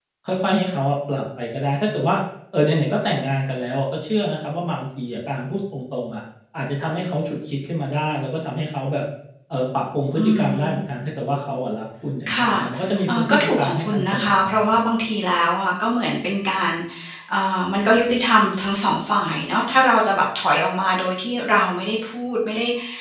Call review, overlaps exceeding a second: present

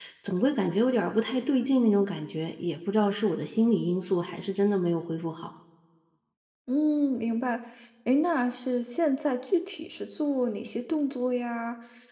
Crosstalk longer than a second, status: none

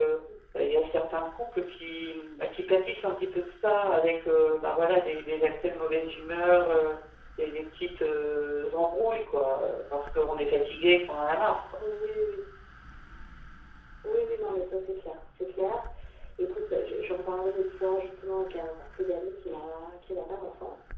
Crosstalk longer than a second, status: none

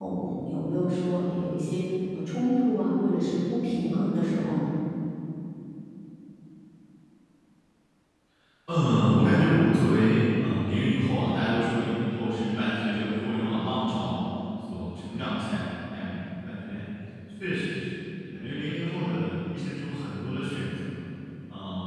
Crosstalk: none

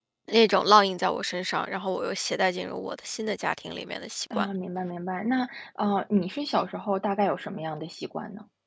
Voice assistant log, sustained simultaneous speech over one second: none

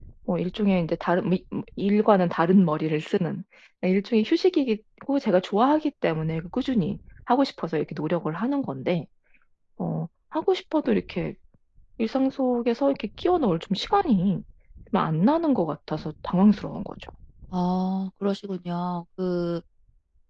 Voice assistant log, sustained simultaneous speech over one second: none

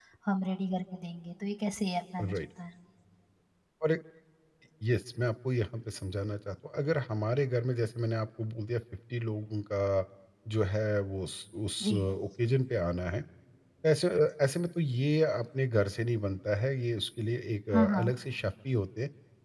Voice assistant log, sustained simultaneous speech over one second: none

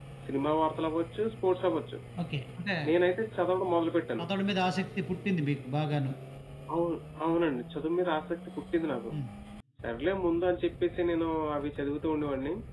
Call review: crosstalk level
none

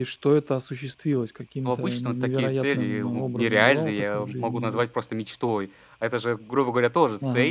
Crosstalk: present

